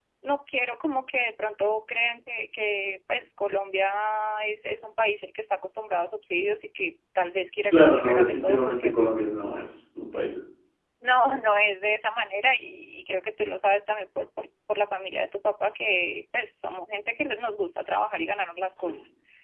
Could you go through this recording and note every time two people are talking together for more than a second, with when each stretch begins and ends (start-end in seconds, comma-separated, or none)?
7.7-8.9